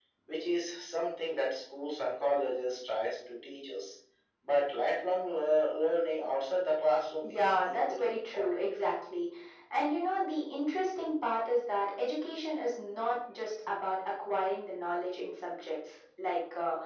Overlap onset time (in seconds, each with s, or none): 7.2 s